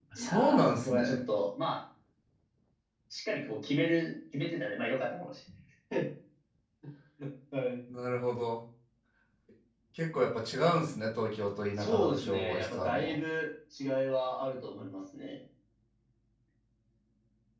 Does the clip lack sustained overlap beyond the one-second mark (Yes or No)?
No